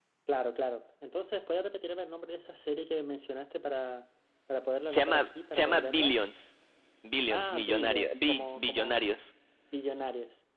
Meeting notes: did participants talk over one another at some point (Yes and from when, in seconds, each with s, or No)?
Yes, from 4.9 s